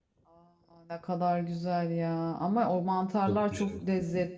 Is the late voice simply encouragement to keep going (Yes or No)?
Yes